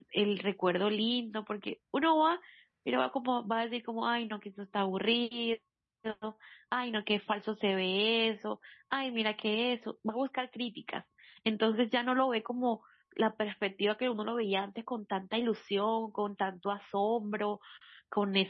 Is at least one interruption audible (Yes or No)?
No